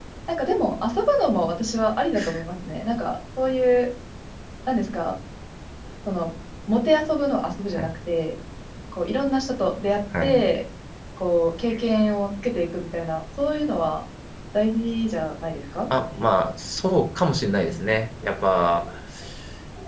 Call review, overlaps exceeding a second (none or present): none